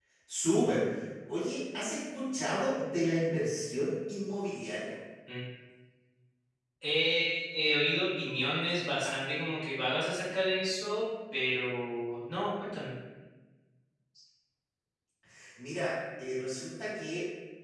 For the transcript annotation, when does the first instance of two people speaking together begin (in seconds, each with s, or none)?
none